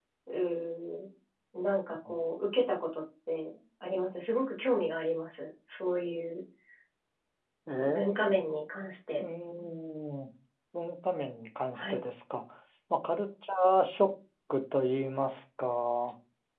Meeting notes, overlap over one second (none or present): none